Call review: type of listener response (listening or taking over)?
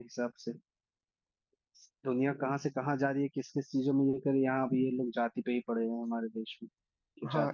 taking over